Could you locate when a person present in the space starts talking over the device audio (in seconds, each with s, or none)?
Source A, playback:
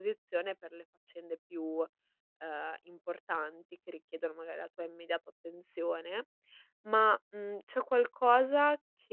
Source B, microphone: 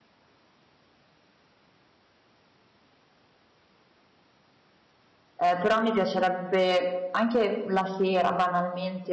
5.4 s